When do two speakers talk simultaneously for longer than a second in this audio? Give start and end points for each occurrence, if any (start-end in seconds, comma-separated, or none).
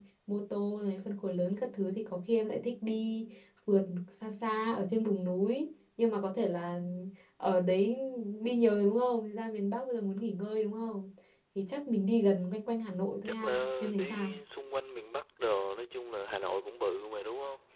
12.9-14.3